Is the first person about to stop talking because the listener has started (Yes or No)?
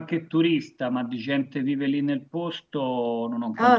Yes